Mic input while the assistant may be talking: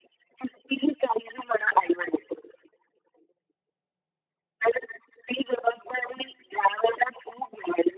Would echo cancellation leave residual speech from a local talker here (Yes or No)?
No